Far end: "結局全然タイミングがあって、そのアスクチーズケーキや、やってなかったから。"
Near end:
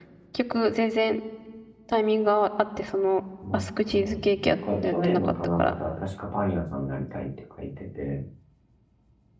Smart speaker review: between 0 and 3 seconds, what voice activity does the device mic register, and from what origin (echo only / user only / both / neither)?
echo only